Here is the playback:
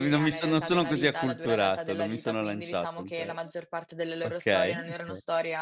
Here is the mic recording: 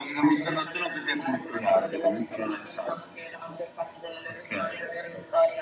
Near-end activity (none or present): none